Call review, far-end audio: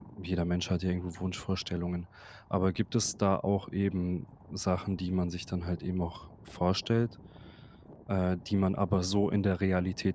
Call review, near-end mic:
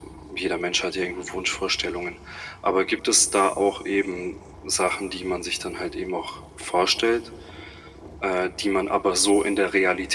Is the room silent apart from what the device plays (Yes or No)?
Yes